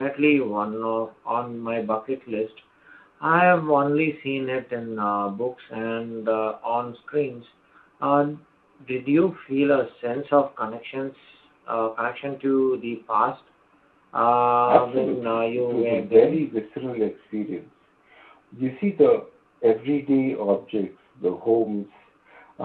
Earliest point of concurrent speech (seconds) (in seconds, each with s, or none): 14.7 s